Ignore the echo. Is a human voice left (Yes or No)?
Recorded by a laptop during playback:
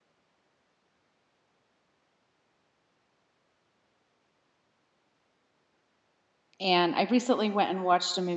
Yes